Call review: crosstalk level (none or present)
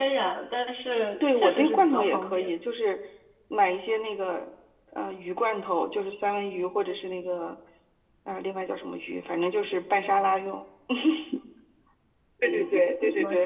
present